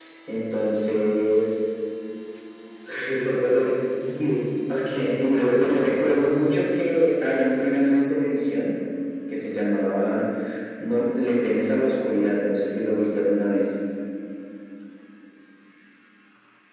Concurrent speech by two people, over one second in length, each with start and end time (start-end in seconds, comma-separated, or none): 5.2-6.4